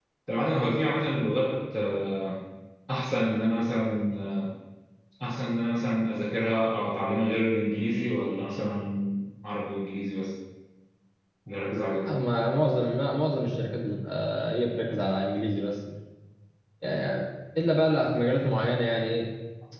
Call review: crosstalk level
none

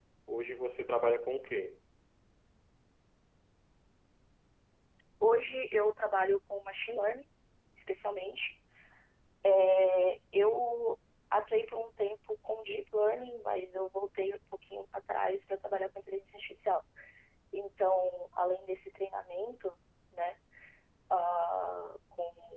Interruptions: none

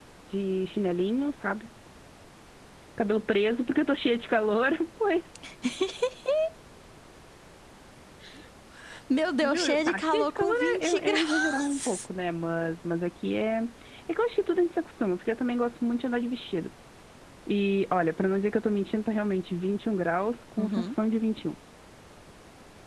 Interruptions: present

